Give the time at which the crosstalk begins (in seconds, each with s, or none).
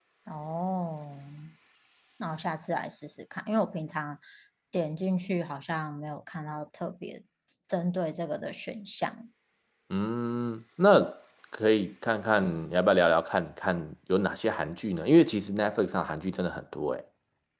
none